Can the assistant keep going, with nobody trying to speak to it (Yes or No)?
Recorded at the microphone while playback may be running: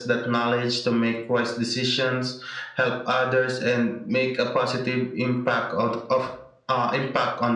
Yes